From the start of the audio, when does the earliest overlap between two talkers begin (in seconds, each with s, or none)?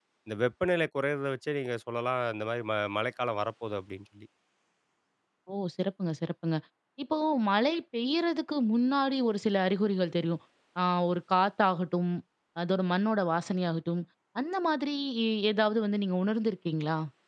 none